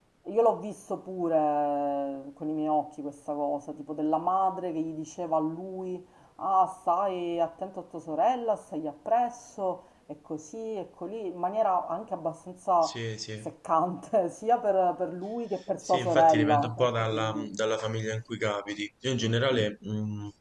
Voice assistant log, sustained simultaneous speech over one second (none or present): present